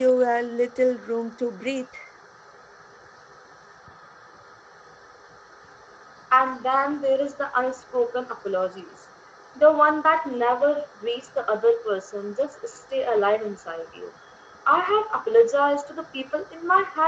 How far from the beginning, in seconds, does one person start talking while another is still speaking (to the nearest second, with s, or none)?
none